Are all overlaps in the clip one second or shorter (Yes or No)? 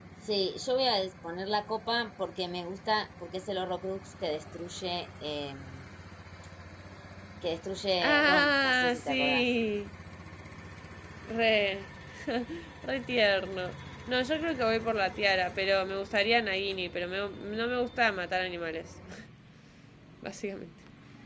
No